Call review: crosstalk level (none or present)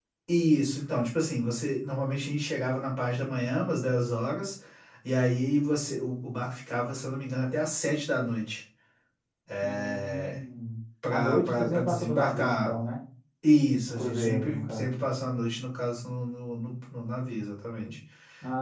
present